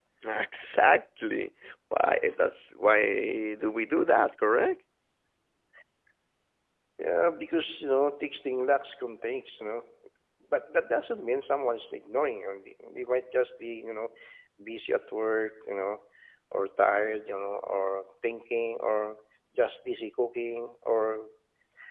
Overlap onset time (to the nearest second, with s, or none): none